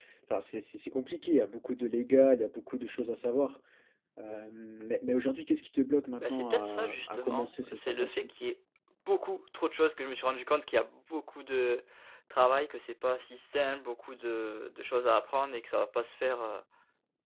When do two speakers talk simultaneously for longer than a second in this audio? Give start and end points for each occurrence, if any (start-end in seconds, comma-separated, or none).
6.2-8.3